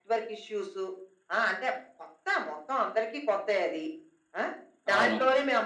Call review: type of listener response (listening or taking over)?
listening